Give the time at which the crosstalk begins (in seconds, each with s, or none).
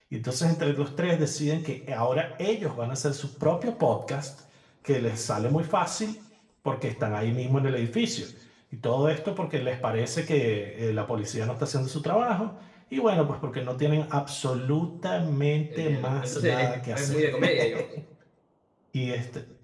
15.7 s